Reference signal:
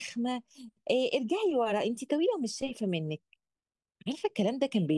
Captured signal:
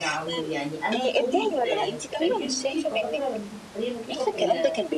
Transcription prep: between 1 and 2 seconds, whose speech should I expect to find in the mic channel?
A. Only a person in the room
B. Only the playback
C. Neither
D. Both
D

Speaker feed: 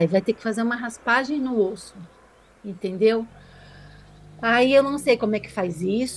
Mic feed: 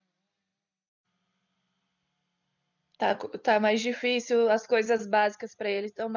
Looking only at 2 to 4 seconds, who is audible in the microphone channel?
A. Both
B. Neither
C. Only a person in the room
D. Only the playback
C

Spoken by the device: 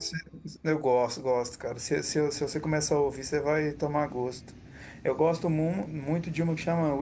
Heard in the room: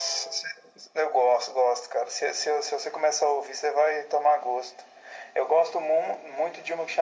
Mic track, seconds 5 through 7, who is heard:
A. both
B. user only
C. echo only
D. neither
C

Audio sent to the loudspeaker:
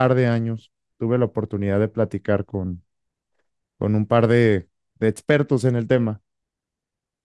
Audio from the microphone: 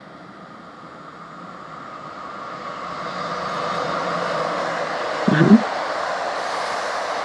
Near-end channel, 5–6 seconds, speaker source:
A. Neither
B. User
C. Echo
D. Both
B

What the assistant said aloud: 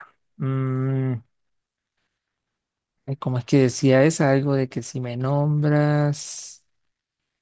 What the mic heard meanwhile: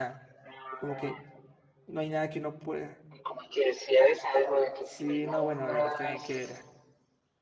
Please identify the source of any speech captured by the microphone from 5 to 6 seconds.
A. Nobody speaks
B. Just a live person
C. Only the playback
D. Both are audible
D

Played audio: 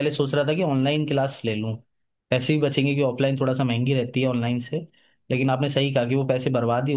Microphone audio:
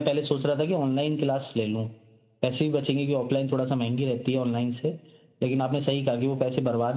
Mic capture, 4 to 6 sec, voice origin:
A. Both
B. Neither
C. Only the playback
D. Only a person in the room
C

